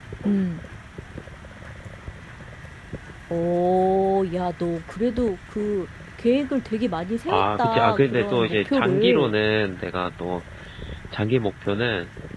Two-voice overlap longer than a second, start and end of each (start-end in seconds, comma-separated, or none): 7.3-9.3